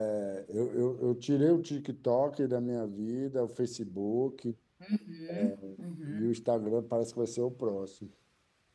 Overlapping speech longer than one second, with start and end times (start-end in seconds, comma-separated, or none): none